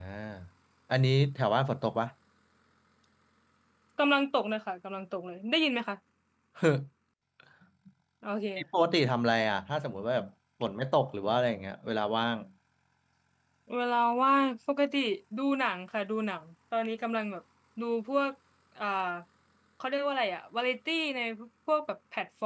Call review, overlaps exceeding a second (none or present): none